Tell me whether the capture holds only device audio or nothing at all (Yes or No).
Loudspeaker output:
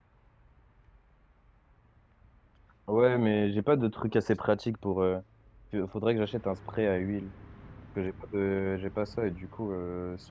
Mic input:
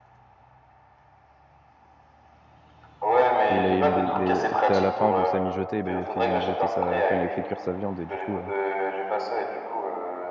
No